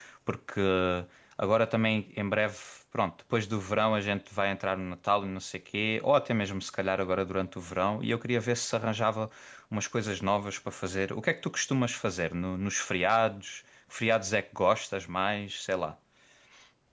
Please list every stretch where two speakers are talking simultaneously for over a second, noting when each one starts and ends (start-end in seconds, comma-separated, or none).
none